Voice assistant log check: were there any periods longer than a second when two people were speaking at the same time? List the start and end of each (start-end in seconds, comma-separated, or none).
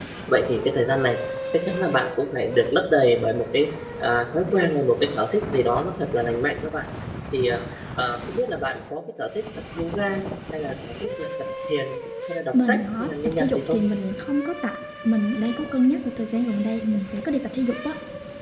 12.5-13.8